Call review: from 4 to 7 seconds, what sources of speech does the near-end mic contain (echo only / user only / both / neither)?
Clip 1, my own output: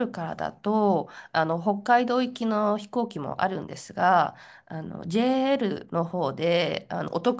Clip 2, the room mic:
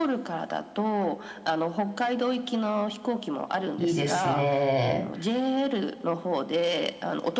both